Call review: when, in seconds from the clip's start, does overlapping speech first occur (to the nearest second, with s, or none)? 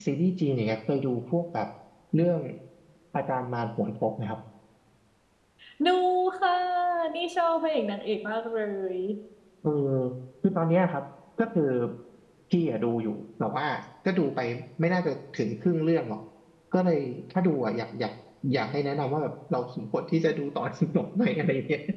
none